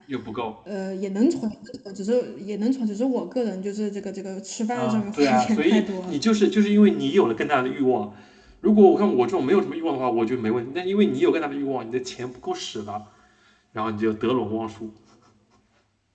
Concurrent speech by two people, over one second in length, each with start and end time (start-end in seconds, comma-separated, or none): 4.8-6.1